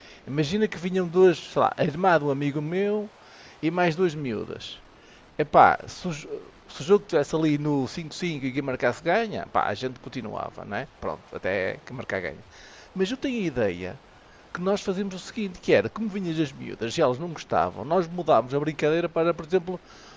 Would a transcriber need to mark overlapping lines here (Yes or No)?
No